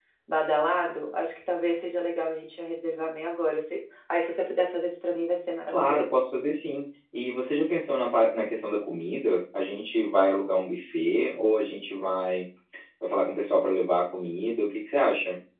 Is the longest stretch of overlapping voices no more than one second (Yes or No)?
Yes